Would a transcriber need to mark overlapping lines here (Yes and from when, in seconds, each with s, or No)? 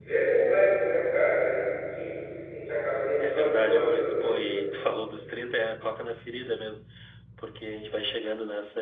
Yes, from 3.2 s